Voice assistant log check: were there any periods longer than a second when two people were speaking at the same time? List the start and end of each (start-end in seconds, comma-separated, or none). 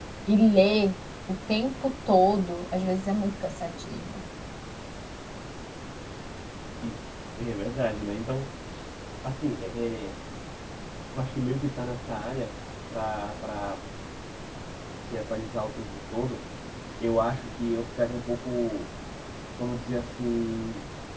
none